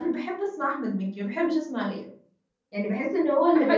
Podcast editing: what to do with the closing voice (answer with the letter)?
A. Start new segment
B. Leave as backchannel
A